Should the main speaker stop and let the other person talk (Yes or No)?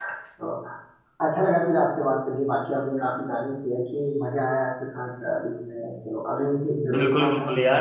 Yes